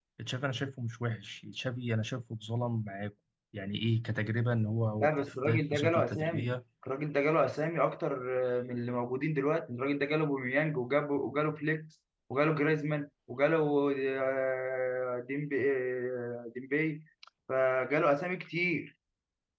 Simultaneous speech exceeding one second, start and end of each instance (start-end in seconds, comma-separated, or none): 5.0-6.5